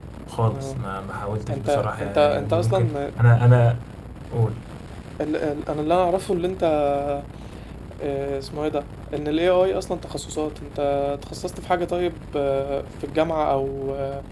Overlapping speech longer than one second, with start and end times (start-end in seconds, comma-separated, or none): 1.5-3.0